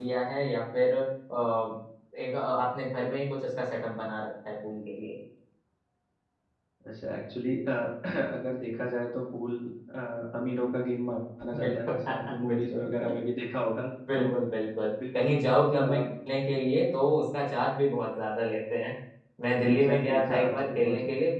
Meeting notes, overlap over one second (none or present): present